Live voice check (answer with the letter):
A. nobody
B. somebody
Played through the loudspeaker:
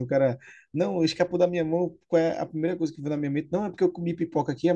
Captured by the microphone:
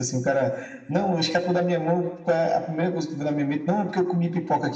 A